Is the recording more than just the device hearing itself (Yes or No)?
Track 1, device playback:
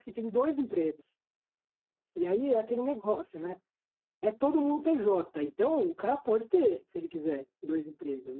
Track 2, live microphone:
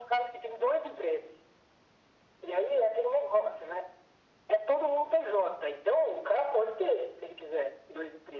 No